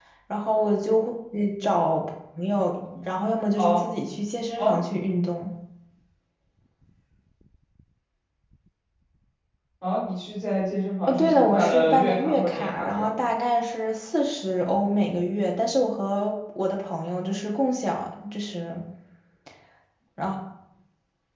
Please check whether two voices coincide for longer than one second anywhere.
Yes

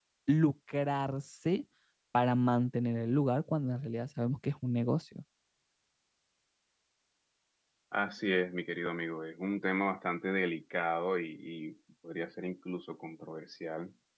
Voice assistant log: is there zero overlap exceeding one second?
Yes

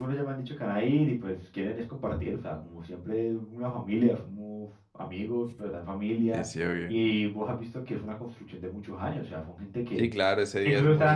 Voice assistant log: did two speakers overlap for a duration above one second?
No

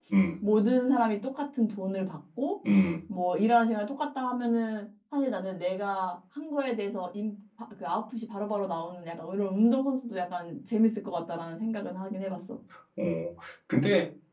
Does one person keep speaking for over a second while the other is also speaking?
No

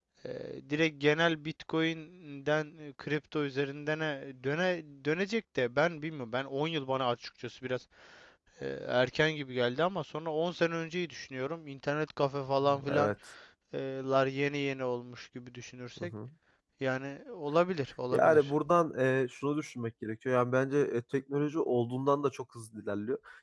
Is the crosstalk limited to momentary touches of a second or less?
Yes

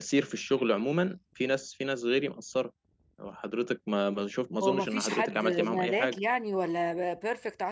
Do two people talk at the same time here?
Yes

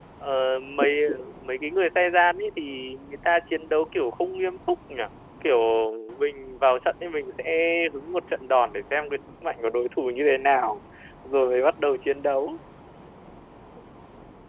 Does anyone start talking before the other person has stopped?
No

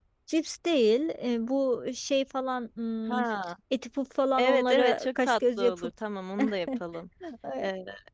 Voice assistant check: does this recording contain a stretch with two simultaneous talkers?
Yes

